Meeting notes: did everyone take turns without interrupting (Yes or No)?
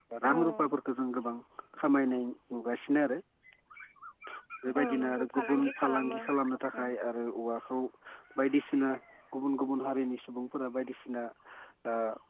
No